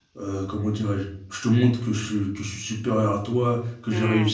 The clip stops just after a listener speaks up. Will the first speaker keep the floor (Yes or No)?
Yes